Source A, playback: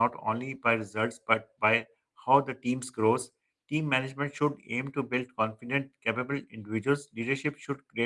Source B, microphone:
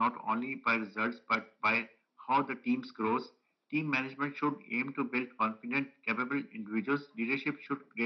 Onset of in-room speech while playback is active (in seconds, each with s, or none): none